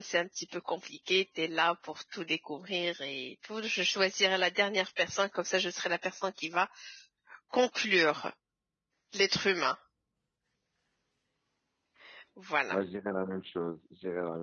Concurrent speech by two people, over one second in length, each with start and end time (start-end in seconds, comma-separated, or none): none